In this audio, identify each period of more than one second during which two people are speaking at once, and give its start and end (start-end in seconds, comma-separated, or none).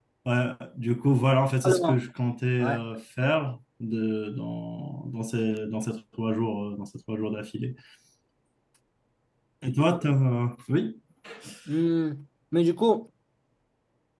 none